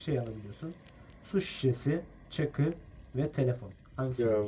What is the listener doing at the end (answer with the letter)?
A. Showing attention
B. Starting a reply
B